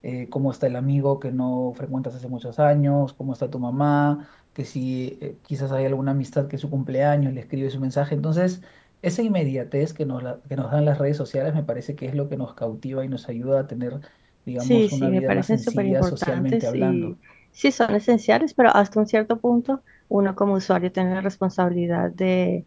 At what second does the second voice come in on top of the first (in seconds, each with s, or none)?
14.6 s